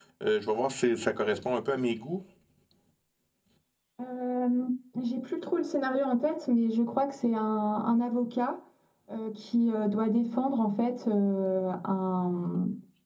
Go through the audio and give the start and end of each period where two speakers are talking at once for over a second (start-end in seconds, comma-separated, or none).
none